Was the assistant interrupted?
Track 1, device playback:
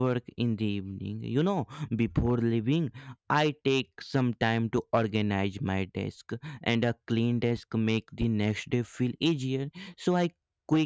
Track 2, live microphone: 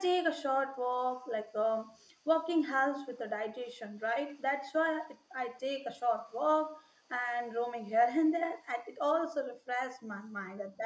Yes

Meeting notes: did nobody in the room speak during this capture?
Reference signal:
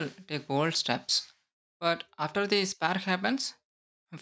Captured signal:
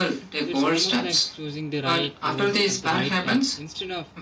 No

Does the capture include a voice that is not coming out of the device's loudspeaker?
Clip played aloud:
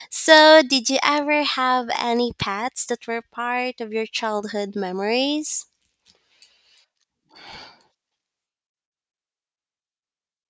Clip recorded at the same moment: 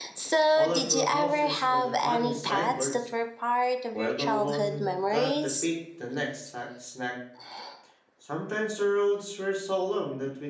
Yes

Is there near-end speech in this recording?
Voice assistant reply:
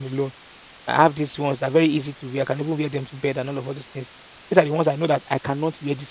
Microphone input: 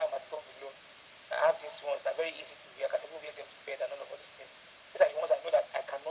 No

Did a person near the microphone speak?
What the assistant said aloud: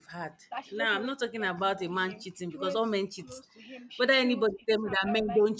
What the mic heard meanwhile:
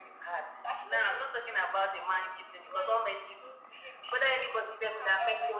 No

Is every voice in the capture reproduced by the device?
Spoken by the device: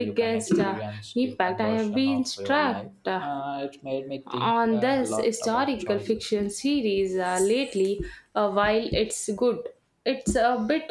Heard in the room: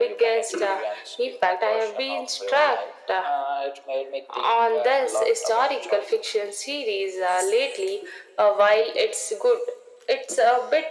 Yes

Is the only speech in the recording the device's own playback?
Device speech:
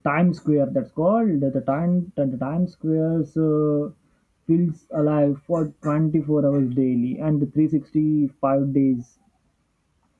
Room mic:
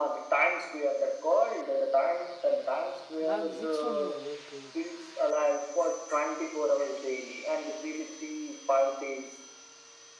No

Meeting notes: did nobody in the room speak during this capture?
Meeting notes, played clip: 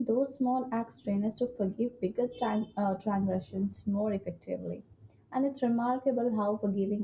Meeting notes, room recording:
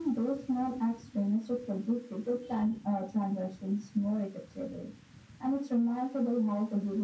Yes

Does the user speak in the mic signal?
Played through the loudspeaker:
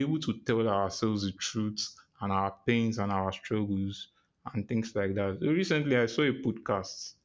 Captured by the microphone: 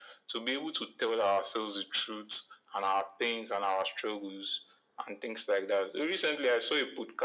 No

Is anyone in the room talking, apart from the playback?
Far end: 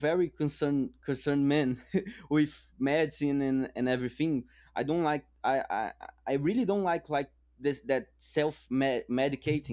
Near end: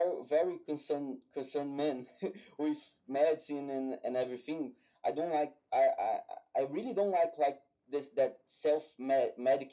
No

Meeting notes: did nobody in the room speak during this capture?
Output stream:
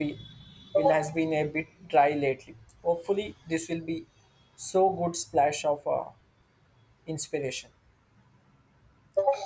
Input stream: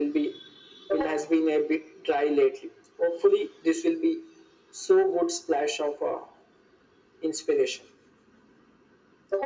Yes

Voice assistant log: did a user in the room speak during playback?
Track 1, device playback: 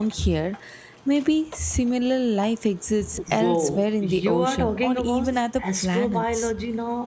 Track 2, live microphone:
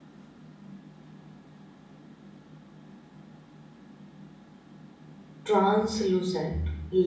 Yes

